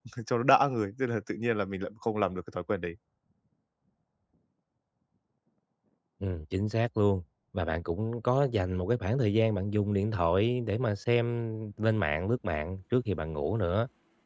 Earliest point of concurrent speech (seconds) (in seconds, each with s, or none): none